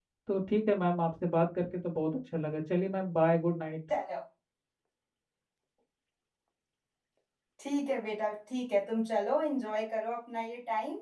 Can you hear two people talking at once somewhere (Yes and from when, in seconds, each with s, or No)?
No